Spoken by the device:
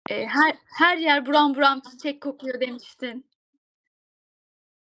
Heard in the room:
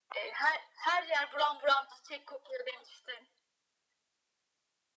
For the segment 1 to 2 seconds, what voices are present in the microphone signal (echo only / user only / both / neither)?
echo only